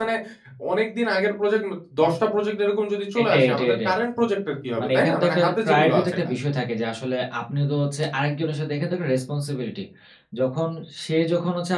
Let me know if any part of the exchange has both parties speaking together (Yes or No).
Yes